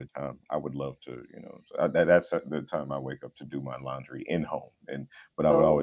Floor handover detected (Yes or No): No